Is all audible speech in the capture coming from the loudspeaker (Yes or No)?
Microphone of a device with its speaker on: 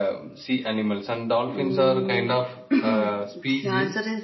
No